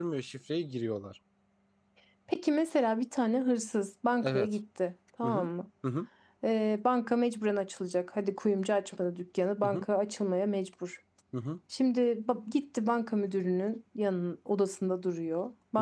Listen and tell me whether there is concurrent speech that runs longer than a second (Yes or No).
No